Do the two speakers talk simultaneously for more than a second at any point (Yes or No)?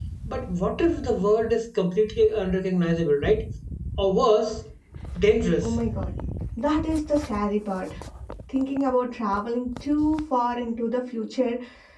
No